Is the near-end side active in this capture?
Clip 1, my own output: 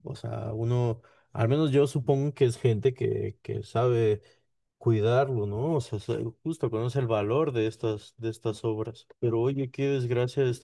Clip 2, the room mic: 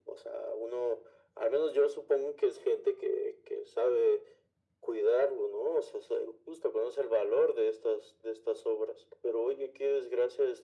No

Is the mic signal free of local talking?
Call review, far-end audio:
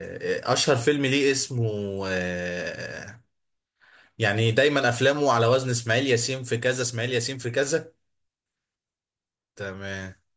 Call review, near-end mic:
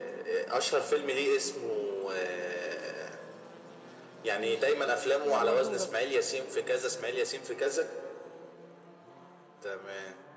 No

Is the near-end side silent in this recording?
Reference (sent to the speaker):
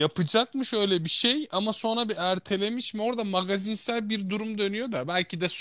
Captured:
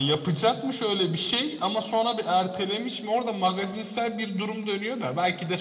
Yes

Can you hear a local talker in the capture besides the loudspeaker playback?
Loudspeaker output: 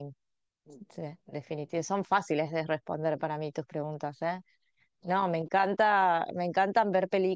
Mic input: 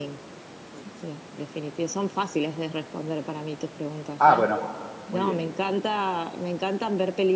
Yes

